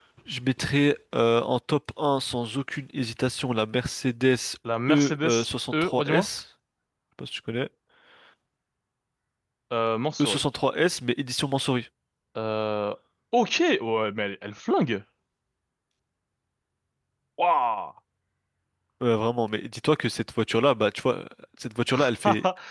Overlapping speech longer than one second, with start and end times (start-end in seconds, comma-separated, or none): 4.9-6.3